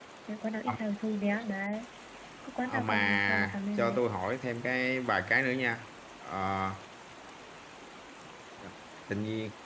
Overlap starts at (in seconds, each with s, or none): 2.7 s